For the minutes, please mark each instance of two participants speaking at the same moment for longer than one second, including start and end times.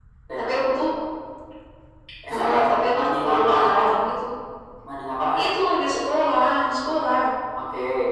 2.3-3.8

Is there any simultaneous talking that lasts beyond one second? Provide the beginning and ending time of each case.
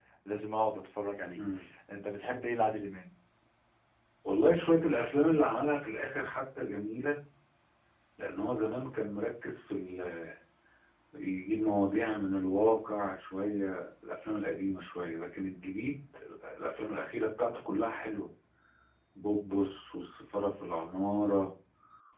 none

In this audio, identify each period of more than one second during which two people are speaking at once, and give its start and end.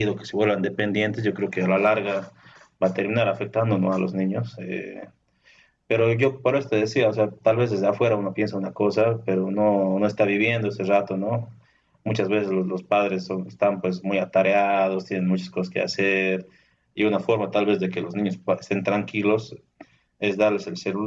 none

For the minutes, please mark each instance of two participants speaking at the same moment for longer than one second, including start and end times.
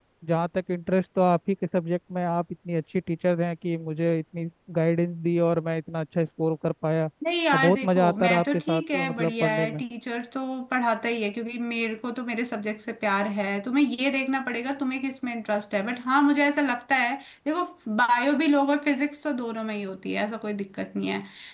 7.5-9.8

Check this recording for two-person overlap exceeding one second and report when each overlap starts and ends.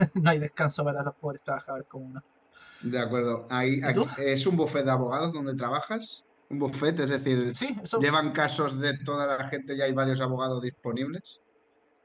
none

